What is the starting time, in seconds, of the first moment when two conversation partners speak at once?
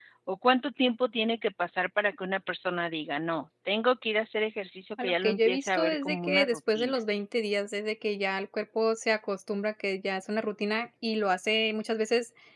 5.0 s

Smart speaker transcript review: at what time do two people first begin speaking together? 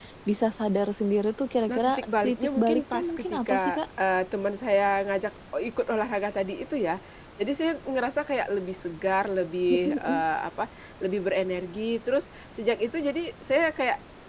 1.6 s

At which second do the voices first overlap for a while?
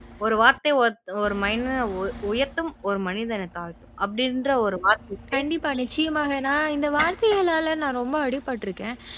none

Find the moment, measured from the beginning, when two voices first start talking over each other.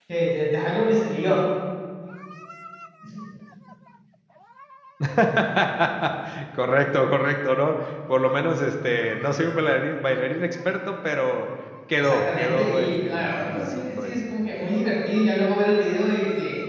12.0 s

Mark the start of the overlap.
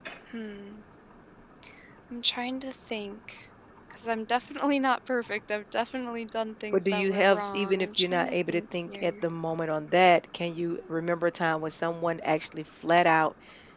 6.7 s

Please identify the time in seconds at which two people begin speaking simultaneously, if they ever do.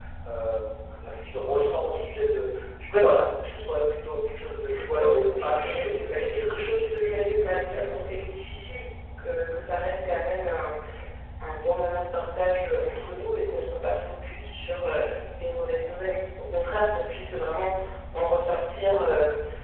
4.7 s

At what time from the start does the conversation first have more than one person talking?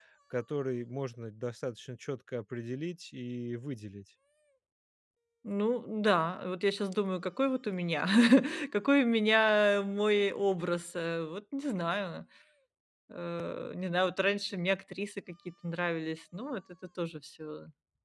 none

